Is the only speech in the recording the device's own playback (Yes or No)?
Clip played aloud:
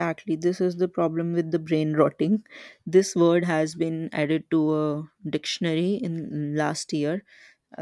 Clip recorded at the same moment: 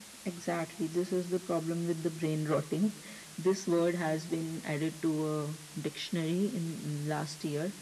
Yes